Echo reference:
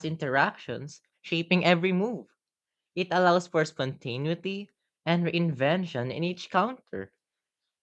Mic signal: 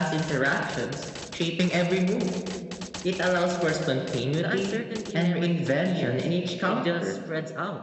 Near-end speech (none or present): present